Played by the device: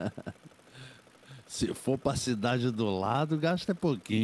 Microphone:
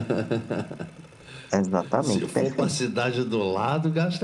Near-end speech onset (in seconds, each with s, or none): 1.5 s